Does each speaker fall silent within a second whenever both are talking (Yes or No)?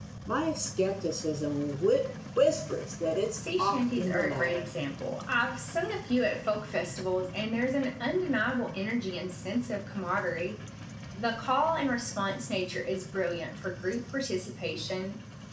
No